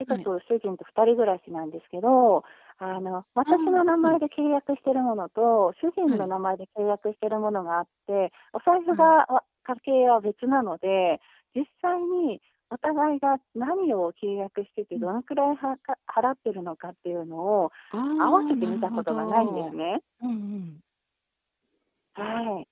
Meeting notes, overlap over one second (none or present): present